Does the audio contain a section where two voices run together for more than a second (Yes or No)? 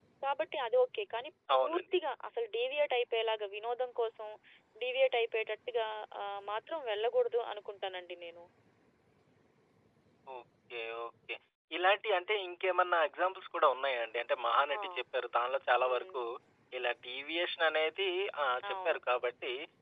No